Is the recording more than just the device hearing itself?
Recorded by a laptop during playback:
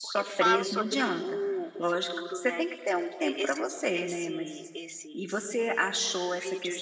Yes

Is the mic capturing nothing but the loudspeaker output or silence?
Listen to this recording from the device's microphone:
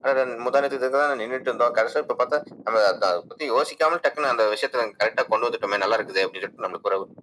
Yes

